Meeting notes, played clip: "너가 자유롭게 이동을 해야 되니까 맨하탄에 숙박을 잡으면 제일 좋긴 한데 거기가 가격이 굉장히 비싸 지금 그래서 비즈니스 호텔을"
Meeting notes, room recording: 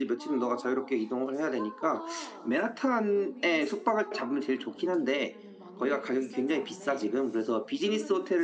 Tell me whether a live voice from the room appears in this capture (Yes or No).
Yes